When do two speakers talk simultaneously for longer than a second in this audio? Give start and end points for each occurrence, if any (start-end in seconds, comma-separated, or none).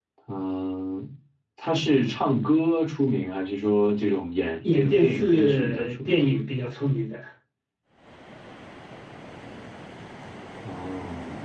4.6-6.2